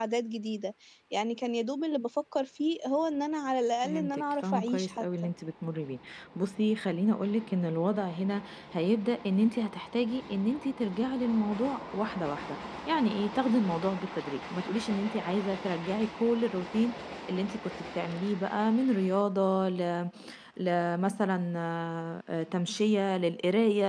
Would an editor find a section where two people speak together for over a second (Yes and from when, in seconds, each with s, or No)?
Yes, from 3.8 s